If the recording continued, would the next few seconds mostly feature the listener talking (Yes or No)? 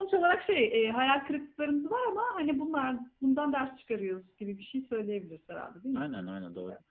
Yes